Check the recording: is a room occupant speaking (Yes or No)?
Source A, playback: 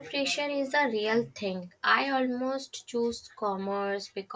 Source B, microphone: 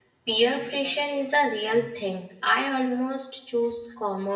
No